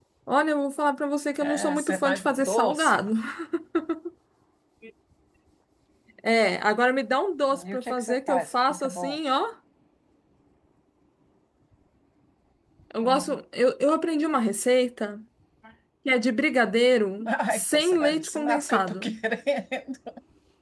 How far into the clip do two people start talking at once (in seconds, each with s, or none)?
1.4 s